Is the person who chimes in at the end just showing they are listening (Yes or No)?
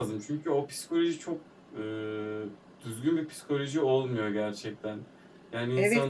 No